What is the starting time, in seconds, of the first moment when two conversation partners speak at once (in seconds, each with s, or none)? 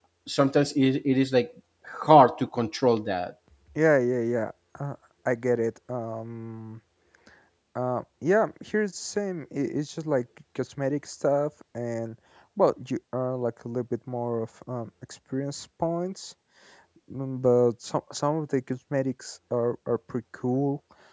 none